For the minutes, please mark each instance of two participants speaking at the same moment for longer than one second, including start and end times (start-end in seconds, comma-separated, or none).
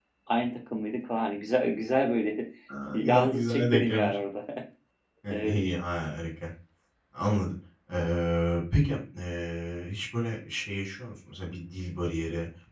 2.9-4.2